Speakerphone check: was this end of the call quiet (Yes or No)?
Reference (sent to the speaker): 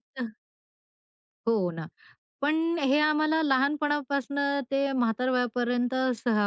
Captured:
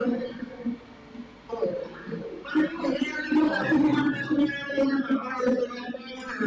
No